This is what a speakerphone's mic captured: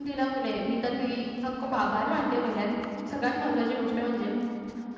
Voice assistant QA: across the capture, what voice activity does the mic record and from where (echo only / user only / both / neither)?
user only